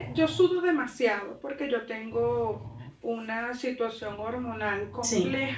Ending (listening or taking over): listening